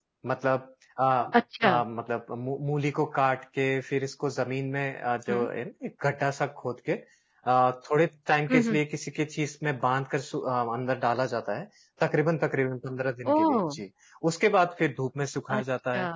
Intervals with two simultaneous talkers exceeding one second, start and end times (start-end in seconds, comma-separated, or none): none